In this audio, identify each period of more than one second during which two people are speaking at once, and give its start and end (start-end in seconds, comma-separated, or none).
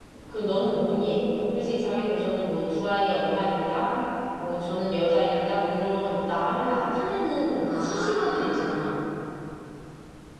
7.6-8.8